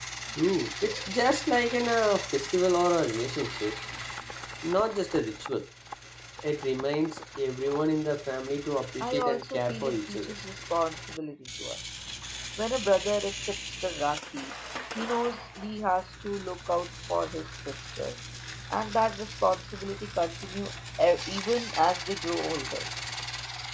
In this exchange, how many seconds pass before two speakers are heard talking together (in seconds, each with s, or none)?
9.0 s